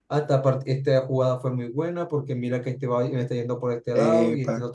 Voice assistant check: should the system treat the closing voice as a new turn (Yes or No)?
No